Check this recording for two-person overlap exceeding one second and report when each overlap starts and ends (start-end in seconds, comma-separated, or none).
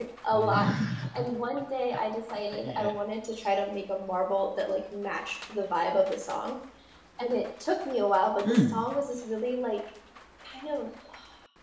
none